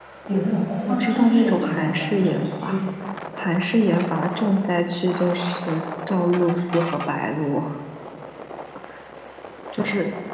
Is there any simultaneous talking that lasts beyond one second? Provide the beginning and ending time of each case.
0.9-2.8

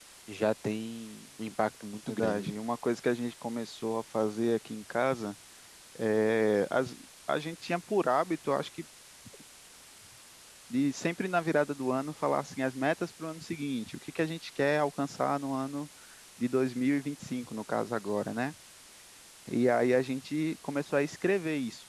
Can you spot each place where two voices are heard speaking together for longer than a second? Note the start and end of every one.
none

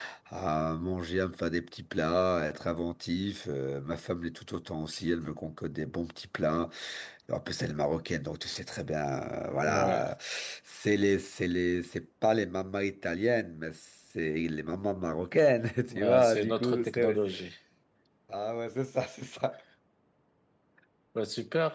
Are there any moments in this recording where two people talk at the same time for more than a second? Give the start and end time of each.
15.9-17.2

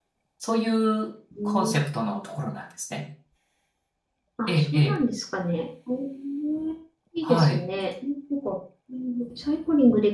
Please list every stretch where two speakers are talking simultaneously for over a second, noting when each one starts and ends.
none

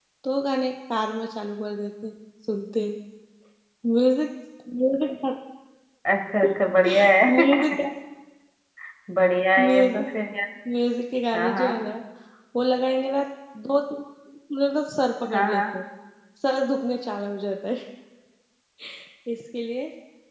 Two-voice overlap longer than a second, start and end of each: none

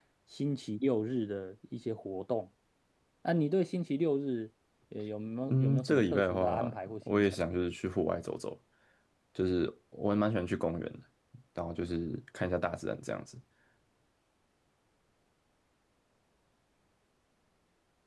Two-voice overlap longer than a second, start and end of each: 5.5-7.4

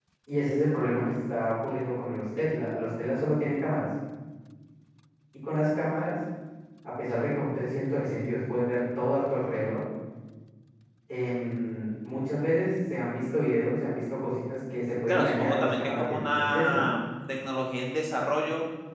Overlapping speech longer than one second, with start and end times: 15.1-16.8

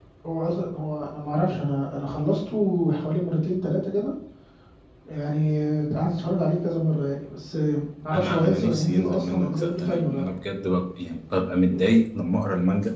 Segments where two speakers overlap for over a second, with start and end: 8.1-10.2

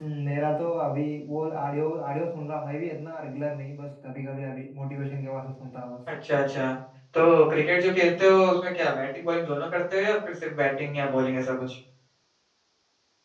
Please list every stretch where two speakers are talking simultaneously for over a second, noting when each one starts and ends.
none

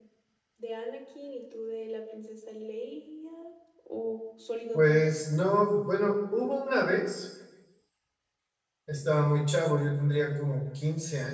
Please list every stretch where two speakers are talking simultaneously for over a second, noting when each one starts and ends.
none

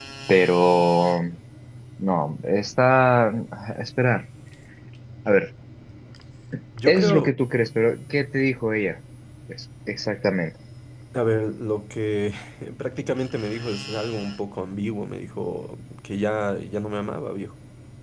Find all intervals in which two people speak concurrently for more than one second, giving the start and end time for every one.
none

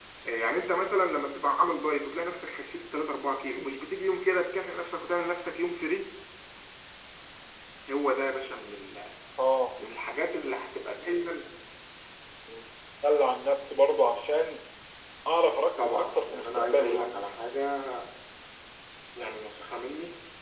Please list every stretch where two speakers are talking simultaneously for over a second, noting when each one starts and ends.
15.8-17.2

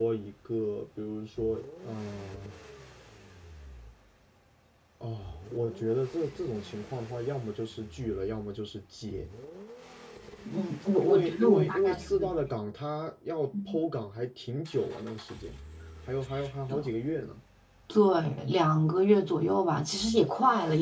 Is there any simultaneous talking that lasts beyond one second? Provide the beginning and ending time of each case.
11.0-12.3

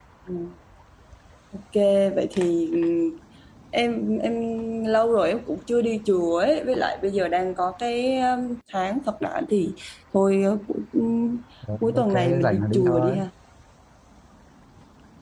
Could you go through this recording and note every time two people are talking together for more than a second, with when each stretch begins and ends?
11.8-13.2

